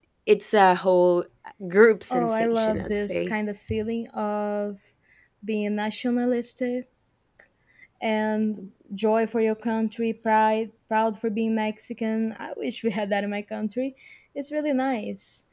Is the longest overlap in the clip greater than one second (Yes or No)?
Yes